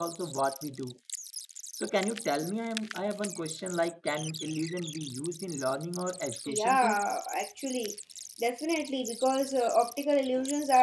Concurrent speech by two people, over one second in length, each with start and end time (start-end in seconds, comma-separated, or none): none